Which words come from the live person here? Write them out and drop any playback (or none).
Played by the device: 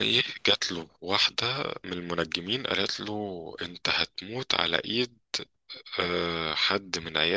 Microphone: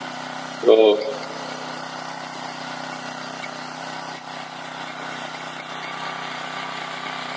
اه